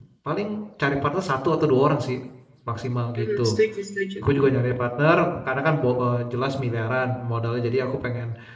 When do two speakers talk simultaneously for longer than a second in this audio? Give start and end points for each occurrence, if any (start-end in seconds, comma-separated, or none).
none